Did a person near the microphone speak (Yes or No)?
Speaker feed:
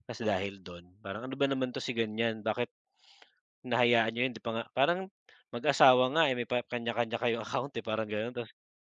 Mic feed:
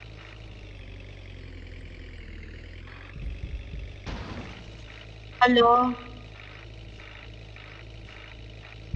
Yes